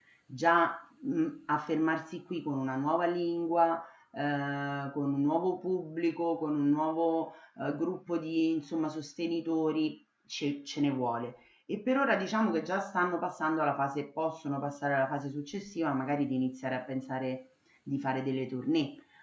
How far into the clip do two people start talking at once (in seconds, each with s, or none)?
none